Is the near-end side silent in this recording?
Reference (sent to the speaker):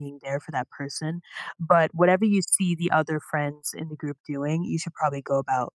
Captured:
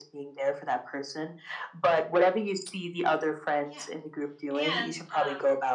No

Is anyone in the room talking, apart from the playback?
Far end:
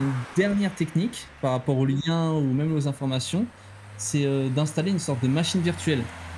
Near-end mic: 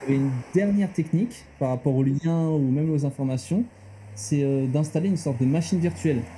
No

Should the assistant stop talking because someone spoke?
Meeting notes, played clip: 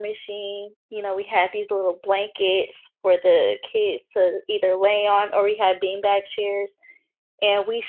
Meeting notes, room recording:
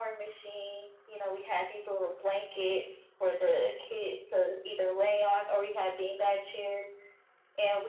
No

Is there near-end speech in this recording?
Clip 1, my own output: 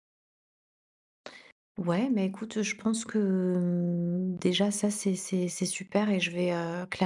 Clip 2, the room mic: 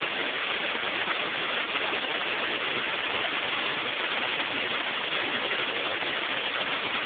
No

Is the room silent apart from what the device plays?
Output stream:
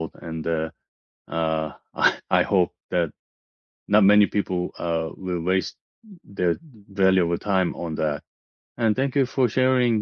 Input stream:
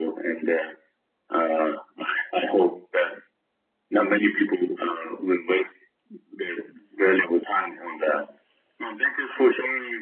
Yes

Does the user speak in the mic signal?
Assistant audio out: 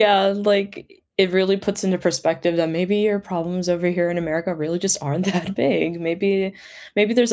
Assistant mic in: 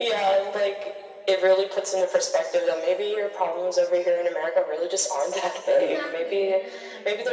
Yes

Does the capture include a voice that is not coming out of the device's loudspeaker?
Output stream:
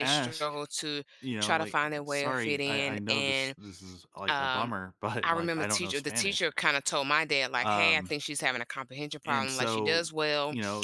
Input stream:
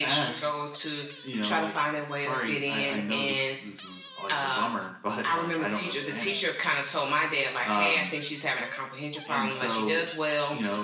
No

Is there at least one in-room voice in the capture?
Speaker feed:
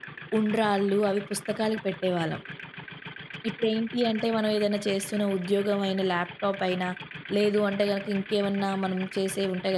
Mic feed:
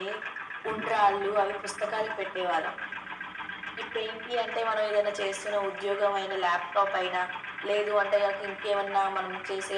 No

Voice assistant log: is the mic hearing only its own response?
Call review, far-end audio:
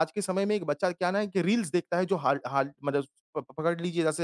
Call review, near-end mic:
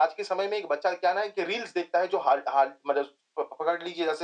Yes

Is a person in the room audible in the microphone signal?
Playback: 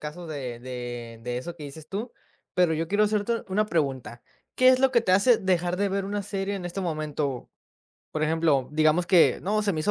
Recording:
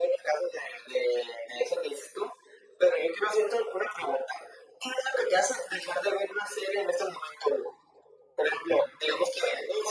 No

